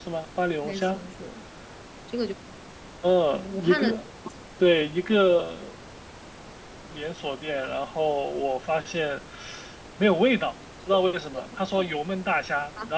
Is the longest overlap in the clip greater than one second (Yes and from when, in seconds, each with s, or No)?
No